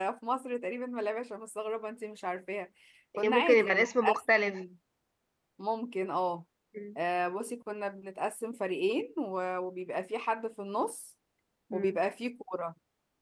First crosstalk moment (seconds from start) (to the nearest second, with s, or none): 3 s